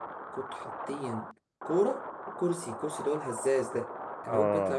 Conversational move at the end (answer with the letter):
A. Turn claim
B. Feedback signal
B